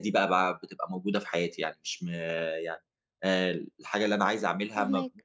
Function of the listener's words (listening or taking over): listening